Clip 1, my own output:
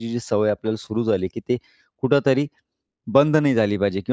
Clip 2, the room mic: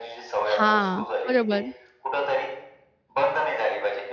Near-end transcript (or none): हां. बरोबर.